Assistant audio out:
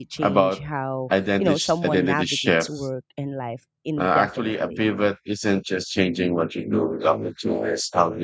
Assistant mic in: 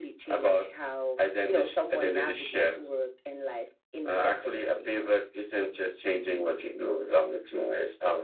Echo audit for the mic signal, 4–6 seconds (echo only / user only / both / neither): echo only